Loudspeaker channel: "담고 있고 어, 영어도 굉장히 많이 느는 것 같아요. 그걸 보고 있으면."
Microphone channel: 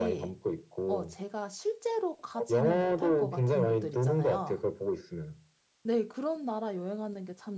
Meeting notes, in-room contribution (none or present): present